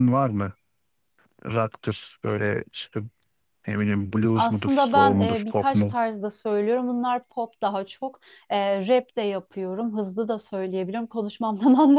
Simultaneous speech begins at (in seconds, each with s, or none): 4.3 s